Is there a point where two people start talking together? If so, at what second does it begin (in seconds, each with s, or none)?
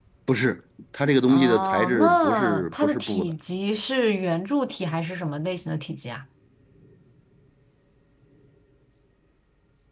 1.3 s